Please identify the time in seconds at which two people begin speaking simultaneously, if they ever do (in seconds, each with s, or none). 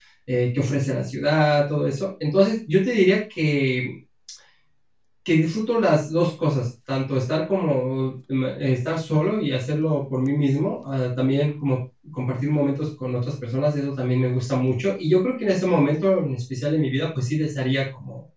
none